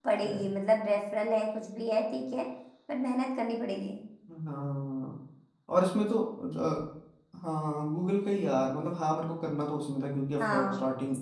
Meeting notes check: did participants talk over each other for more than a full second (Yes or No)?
No